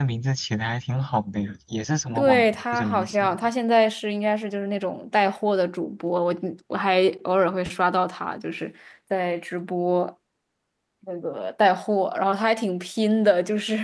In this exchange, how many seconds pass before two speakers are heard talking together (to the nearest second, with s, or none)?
2 s